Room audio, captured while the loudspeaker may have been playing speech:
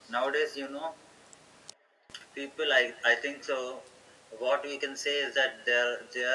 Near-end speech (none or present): none